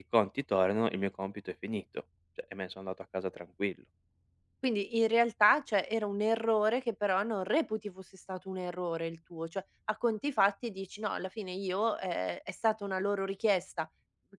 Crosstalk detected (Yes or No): No